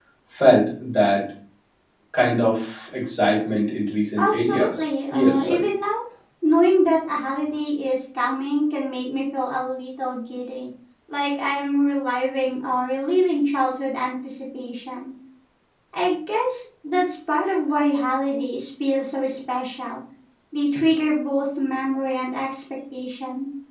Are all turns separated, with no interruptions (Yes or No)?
No